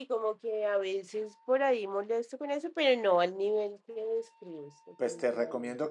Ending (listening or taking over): taking over